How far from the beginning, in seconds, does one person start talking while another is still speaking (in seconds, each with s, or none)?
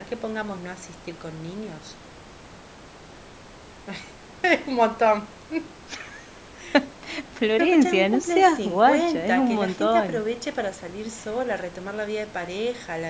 7.6 s